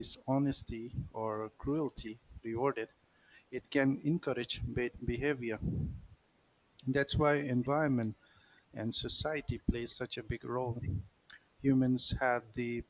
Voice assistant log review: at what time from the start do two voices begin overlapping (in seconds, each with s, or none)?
none